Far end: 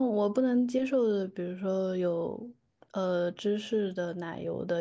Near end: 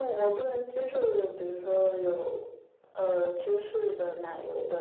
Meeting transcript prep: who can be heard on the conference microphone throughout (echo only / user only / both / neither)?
echo only